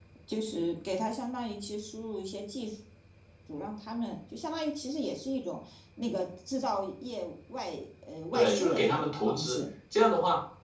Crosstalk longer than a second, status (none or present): present